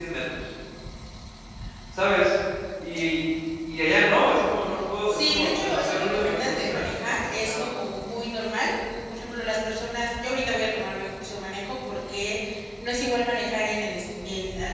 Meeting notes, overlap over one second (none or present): present